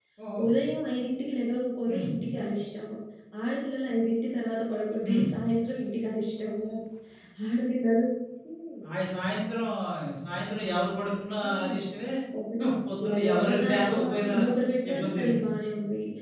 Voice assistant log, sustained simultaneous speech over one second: present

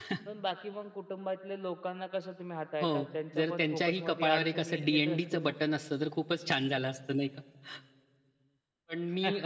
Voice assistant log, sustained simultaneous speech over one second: present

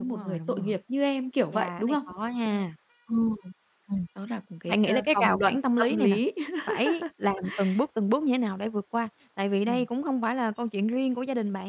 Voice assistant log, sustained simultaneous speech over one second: present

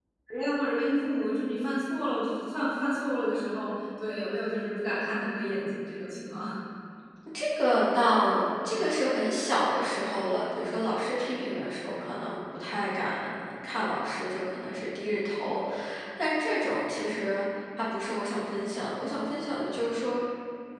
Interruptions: none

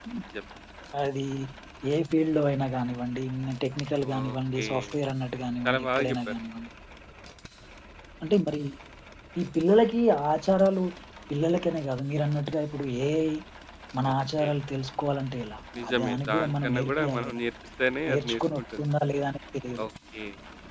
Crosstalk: present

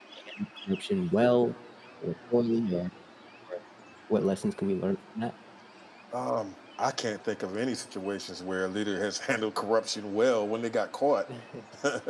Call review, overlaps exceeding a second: none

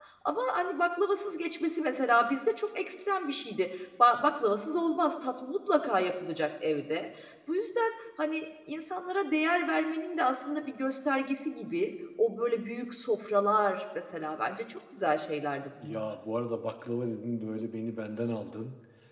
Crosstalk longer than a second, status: none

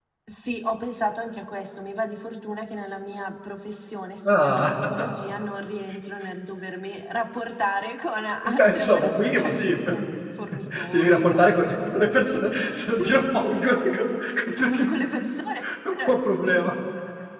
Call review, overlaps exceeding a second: present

